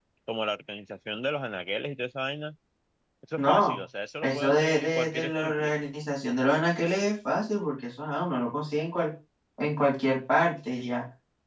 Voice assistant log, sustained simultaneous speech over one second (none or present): present